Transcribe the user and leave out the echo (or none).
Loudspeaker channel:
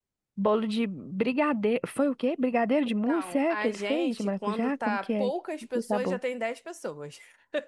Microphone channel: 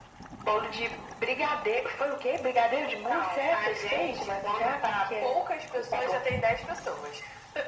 none